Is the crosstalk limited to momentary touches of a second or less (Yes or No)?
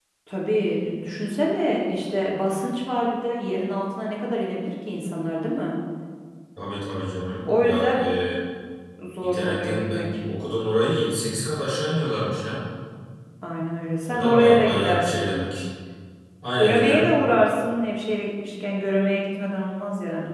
No